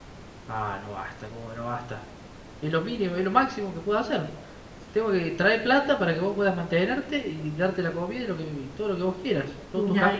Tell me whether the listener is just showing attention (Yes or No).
No